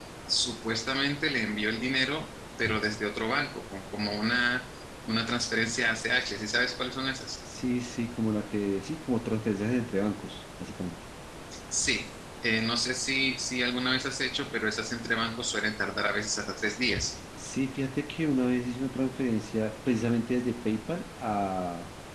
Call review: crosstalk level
none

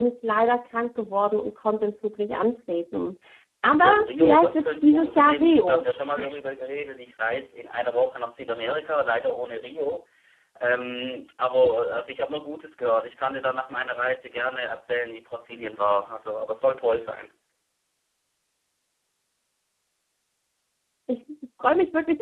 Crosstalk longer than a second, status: present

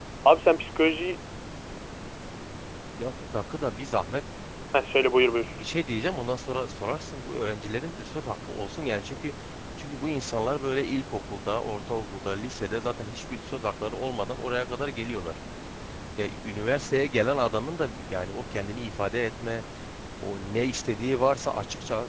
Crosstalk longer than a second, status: none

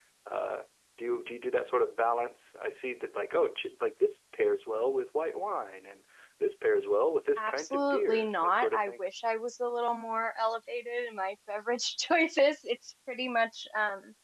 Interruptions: present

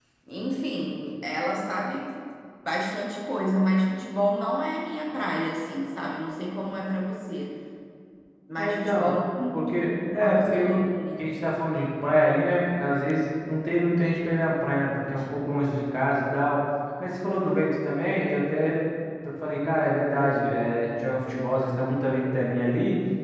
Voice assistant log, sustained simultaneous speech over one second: present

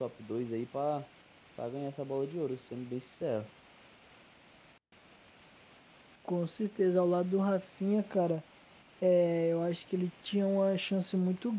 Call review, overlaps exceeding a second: none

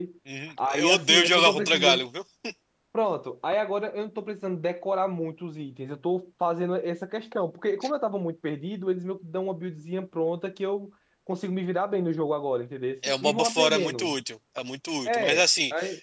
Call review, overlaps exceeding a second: present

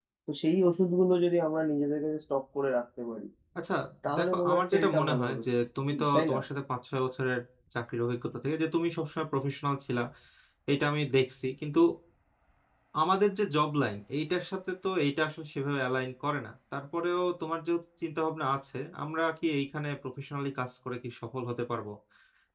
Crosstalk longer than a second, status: present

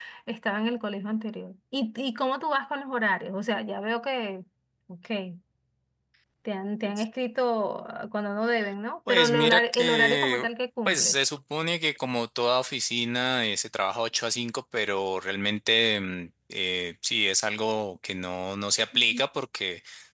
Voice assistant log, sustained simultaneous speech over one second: present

